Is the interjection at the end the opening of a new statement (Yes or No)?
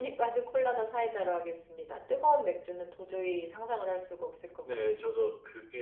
Yes